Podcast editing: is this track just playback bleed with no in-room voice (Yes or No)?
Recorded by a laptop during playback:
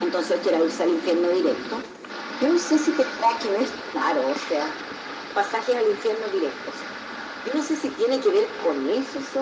Yes